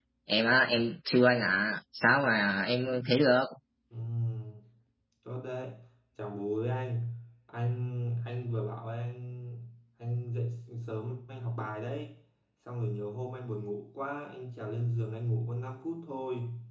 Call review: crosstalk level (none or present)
none